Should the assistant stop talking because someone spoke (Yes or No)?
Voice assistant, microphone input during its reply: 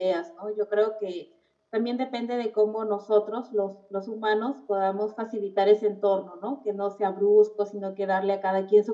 No